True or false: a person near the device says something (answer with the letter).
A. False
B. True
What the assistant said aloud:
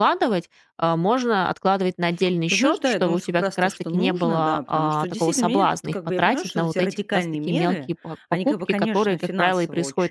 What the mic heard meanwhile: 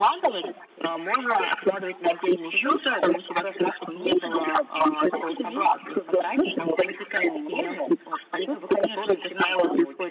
A